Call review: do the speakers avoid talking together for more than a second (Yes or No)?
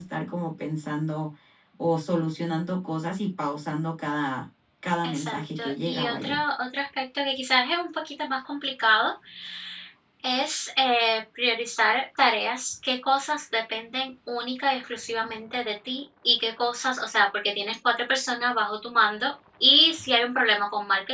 No